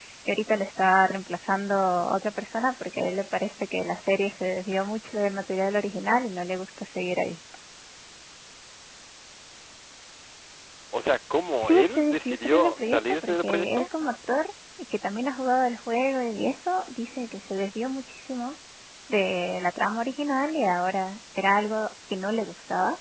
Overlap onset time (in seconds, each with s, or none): 11.6 s